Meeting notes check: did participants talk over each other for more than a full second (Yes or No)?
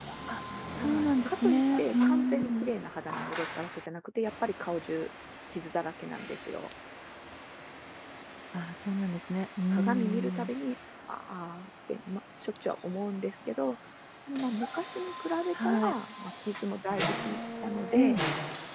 Yes